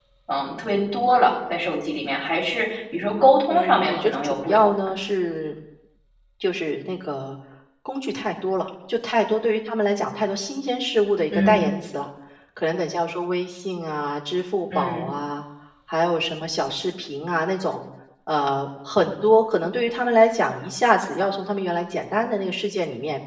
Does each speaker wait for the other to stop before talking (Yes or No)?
No